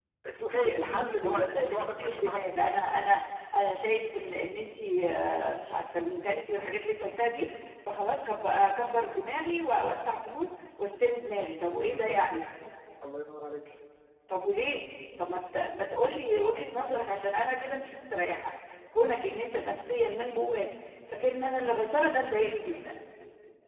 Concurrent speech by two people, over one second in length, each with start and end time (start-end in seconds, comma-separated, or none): 0.7-2.8